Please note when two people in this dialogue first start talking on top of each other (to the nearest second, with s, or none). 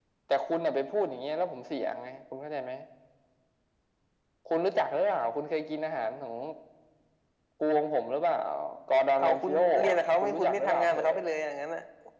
9 s